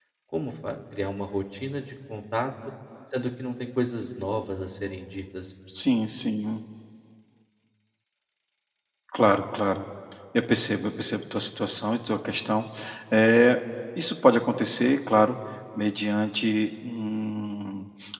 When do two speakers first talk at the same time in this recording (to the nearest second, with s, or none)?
none